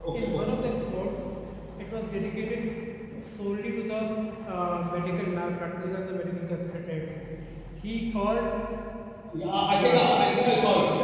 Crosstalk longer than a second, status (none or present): none